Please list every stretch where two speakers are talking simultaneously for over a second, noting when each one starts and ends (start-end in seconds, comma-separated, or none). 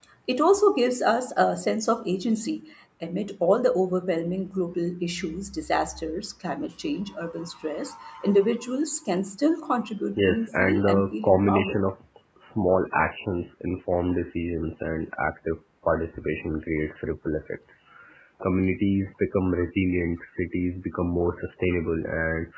10.2-11.8